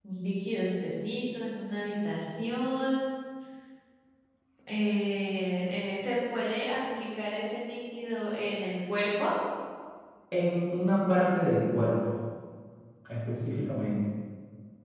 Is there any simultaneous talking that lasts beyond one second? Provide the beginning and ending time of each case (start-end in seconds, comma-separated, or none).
none